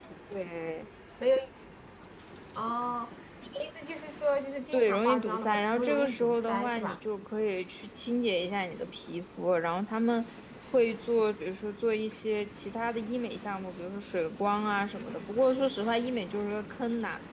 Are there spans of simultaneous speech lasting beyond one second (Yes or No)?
Yes